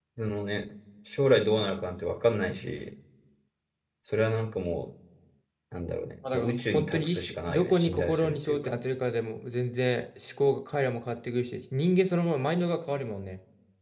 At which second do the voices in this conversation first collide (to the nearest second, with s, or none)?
6 s